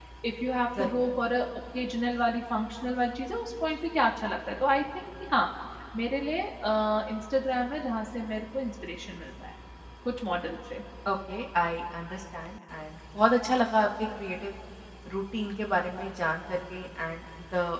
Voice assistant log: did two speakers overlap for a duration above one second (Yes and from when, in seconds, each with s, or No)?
No